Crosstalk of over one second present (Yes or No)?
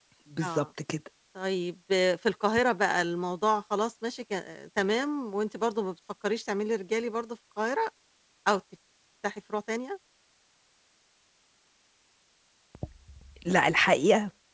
No